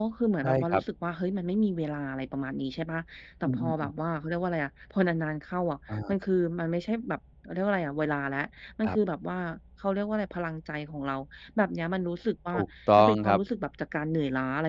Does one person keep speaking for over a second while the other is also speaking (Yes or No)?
No